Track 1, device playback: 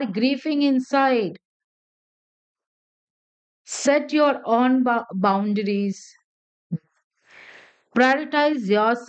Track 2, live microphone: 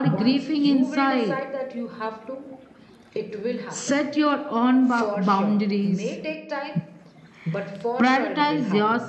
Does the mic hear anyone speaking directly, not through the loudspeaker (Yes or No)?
Yes